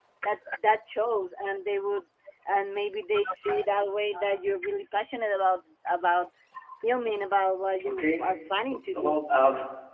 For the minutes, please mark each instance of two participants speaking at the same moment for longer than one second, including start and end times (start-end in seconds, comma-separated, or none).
7.8-9.2